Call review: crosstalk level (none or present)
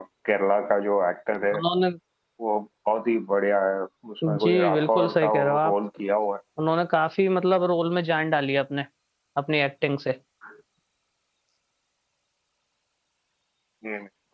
present